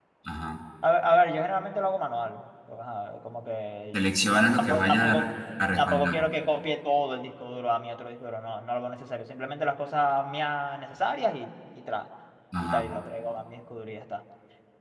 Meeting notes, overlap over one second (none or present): present